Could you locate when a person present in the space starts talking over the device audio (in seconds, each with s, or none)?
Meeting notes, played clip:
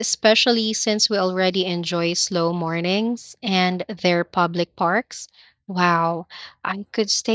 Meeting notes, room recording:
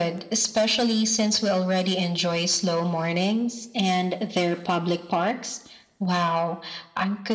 none